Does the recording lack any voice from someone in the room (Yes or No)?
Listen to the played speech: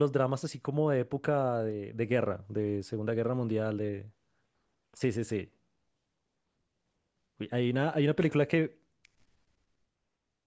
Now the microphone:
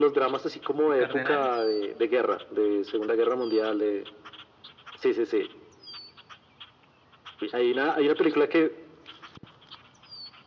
No